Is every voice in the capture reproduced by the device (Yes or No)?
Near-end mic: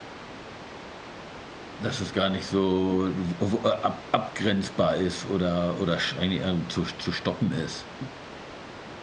No